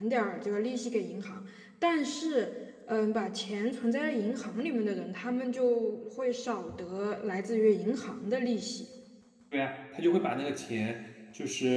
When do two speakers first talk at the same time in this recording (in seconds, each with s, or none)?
none